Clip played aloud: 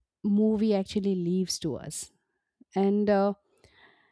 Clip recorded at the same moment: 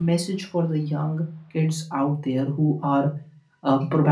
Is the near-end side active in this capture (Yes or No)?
Yes